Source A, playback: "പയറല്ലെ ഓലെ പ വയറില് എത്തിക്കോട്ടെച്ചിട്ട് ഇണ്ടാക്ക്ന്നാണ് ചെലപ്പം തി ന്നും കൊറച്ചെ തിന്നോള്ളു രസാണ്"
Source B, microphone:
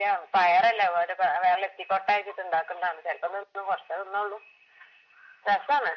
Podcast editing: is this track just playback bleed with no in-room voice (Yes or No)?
Yes